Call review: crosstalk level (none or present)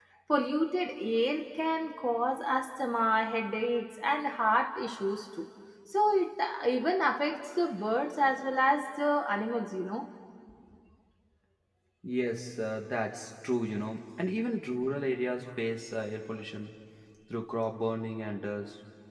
none